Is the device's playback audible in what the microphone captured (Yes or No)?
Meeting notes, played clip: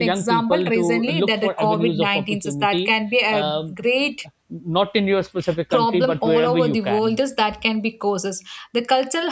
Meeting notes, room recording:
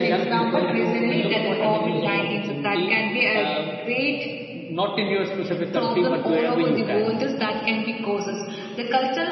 Yes